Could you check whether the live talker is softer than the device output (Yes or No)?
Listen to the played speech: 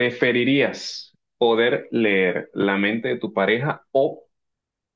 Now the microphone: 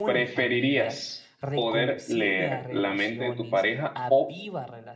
Yes